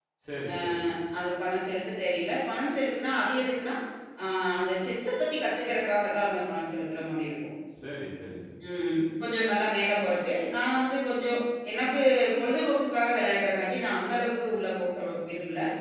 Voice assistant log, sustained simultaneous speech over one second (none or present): none